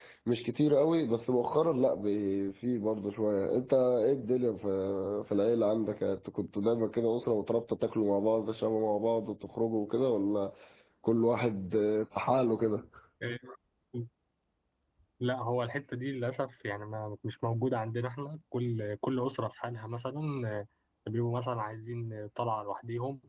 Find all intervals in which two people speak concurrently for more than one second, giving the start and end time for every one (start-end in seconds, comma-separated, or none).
none